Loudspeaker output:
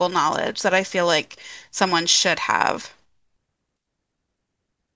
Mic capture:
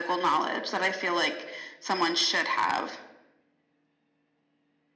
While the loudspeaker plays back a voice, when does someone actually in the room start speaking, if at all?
none

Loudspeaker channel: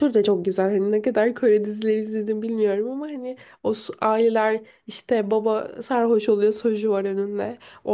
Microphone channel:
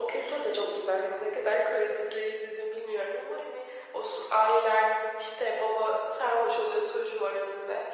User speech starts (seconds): none

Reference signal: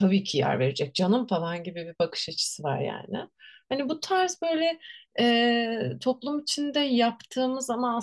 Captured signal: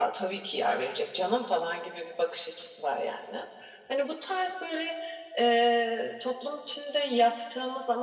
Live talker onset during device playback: none

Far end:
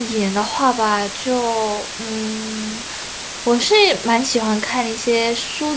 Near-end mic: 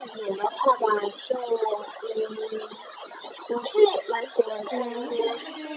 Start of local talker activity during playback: 4.7 s

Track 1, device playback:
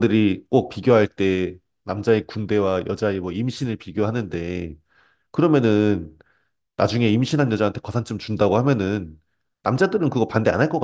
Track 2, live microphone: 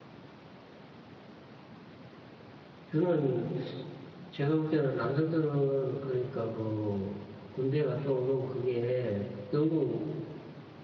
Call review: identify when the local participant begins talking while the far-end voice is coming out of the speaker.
2.9 s

